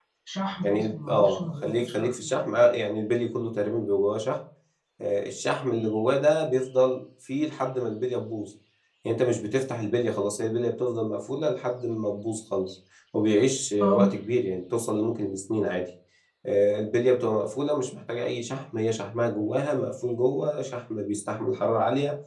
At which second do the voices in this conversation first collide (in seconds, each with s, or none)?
0.6 s